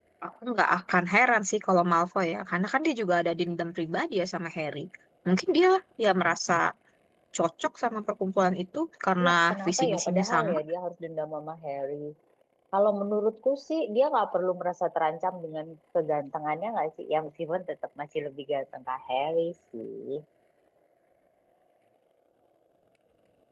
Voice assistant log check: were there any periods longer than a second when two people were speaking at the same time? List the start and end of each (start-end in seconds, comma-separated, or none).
9.2-10.6